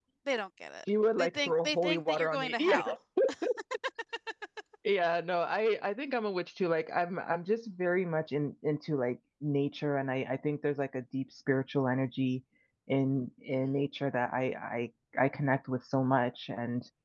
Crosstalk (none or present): present